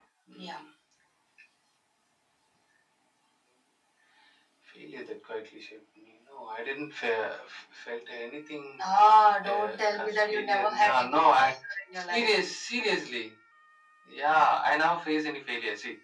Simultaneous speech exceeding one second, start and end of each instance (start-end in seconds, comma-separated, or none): 9.5-11.5